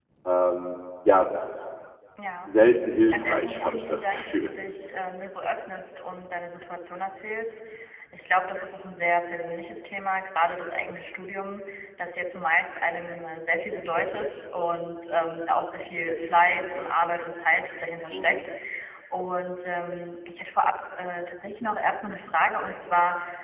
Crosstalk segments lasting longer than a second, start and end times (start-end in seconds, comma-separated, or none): 3.1-4.5